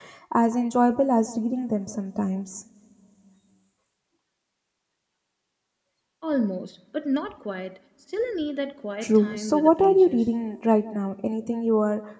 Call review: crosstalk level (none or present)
present